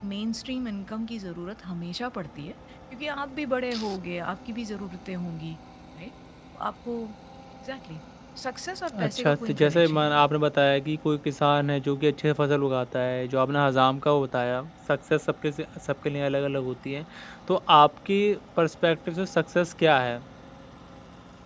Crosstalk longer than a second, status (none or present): present